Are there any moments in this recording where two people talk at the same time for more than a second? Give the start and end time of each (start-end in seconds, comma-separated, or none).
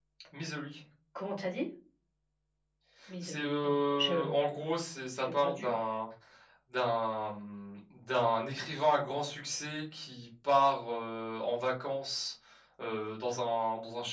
3.2-4.5